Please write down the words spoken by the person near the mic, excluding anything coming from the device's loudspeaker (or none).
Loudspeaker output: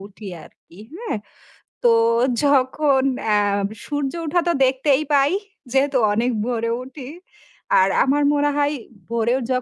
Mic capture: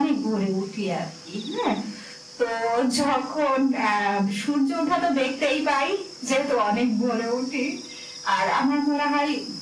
none